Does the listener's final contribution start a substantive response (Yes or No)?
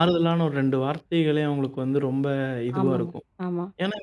No